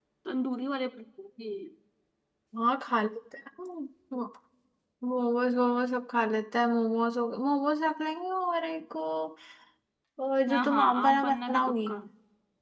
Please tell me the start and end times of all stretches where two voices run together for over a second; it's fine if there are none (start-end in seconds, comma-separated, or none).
10.5-11.9